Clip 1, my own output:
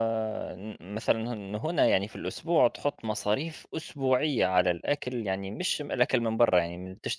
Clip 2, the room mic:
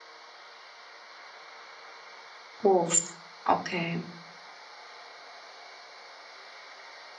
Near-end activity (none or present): present